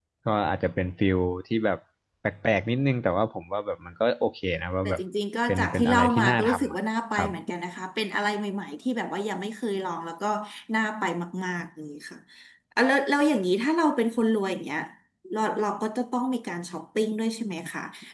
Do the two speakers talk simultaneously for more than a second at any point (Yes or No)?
Yes